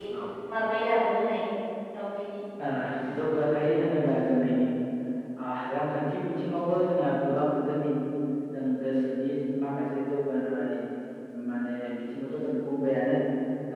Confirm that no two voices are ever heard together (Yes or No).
Yes